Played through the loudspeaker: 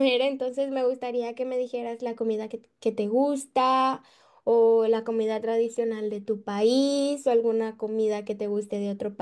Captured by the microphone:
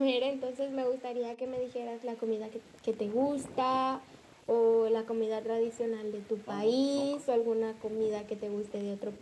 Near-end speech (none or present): present